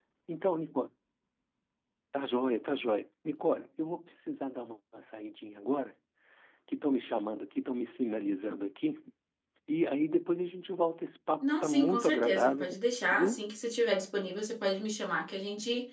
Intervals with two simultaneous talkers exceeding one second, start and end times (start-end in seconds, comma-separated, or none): 11.4-12.7